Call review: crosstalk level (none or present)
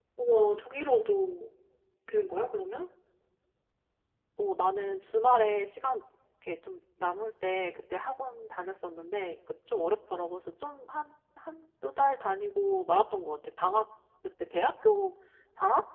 none